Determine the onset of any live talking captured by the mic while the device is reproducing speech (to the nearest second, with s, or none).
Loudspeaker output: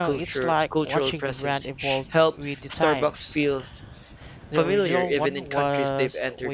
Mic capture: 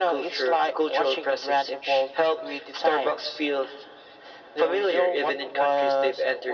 none